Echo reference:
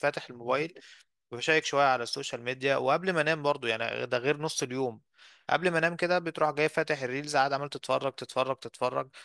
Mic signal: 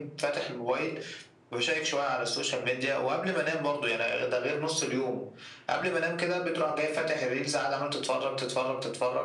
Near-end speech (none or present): none